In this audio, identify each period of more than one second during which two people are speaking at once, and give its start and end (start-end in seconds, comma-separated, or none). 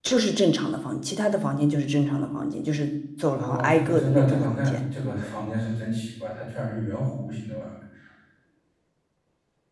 3.2-4.8